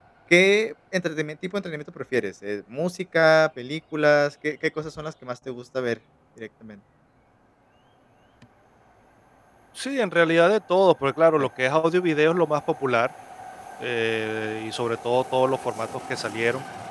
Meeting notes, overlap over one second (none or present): none